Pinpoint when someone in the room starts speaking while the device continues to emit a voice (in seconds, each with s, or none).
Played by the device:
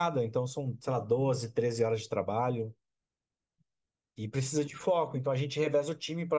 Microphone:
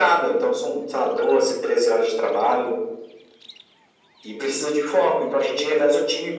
none